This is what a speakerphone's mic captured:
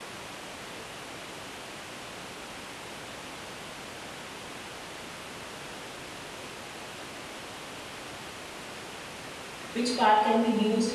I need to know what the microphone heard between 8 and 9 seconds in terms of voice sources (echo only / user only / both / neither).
neither